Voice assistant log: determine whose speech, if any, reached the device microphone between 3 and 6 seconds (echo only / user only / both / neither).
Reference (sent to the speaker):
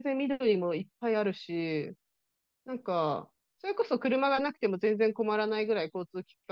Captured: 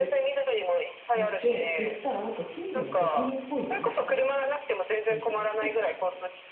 both